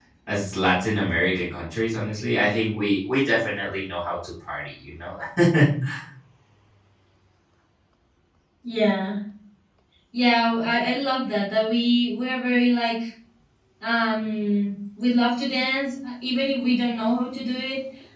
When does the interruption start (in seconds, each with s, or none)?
none